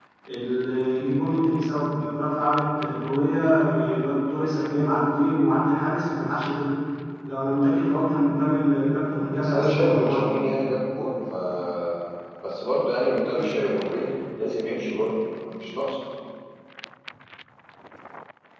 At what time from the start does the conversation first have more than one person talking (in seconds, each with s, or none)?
9.0 s